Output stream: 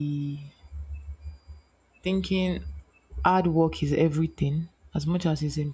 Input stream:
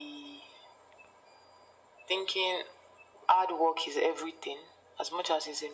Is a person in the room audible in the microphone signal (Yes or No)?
No